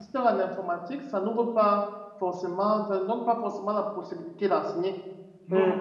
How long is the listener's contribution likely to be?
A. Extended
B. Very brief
B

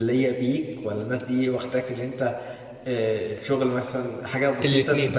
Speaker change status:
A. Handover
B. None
A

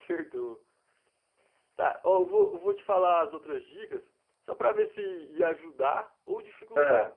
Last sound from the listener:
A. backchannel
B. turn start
A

